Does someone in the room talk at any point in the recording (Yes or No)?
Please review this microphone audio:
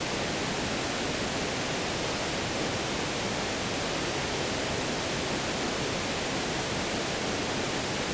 No